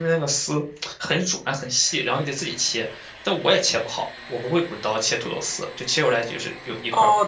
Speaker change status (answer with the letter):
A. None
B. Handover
B